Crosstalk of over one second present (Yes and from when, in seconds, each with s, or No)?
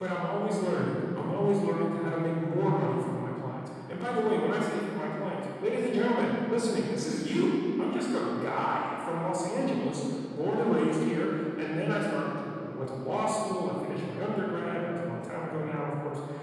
No